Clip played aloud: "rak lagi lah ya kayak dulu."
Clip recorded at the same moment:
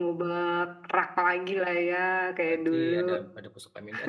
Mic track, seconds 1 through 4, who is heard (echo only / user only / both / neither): both